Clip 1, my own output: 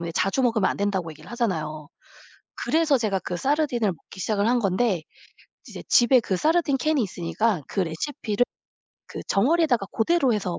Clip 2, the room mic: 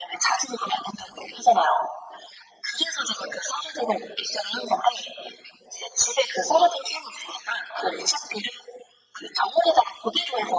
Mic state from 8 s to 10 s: echo only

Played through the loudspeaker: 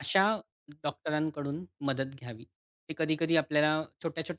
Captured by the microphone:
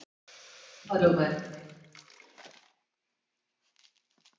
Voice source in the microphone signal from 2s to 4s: neither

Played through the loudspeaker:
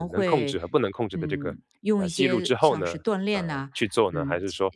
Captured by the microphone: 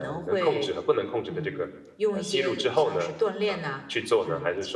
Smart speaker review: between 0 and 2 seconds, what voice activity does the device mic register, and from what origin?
echo only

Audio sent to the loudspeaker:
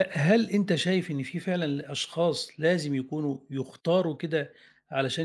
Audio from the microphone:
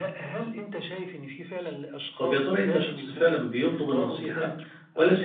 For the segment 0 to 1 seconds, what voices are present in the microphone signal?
echo only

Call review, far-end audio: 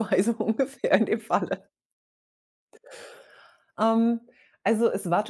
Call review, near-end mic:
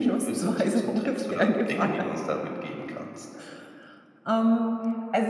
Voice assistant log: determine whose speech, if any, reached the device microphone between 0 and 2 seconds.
both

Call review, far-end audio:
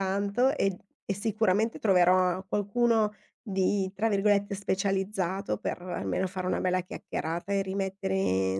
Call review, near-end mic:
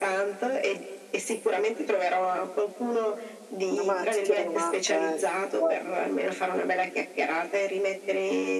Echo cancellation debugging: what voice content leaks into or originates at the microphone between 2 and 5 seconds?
both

